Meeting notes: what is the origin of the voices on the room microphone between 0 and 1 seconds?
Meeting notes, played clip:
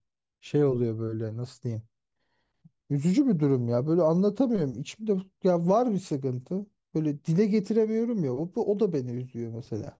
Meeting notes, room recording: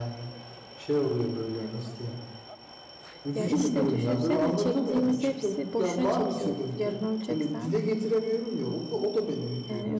echo only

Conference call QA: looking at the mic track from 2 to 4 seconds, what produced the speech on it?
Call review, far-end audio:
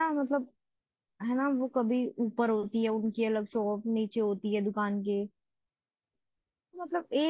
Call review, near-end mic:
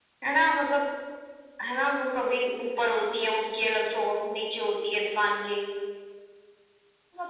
echo only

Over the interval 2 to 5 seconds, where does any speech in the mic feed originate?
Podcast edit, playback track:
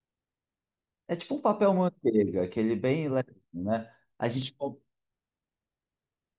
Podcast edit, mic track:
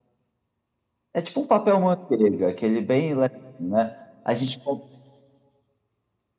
echo only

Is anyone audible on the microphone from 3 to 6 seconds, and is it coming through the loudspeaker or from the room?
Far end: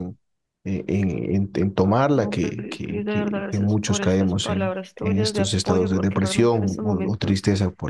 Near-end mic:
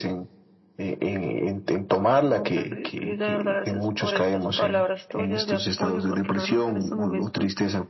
echo only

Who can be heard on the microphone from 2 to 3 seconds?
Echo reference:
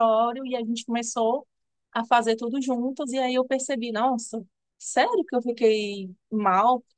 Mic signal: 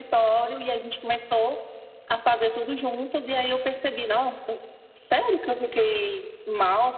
echo only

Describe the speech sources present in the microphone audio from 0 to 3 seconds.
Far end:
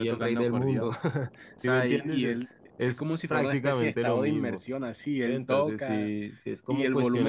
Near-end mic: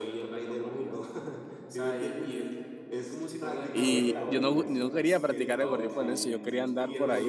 echo only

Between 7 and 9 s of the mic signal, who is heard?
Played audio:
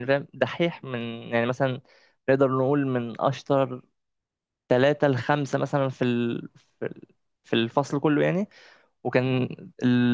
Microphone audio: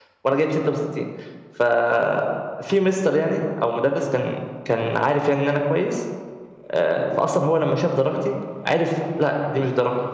user only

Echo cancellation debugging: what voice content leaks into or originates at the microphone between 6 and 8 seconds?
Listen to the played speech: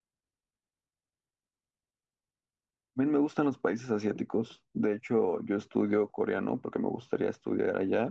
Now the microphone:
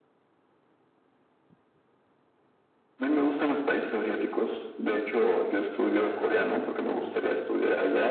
both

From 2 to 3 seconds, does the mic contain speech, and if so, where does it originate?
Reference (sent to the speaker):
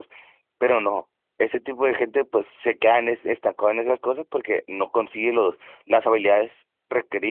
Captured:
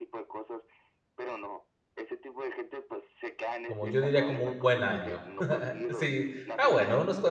echo only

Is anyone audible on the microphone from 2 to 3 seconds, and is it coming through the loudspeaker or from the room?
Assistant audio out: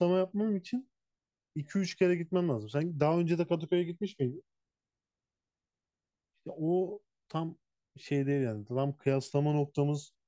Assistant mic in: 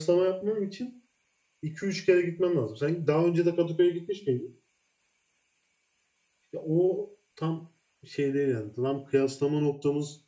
echo only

